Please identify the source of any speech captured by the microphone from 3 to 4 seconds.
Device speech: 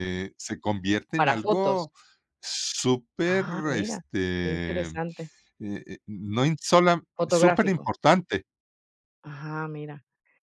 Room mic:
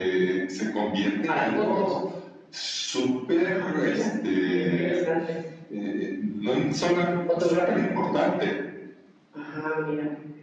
echo only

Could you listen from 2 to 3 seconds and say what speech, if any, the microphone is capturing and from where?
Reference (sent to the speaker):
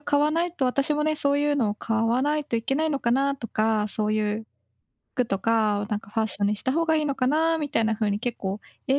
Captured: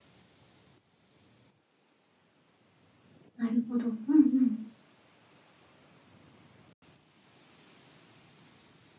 neither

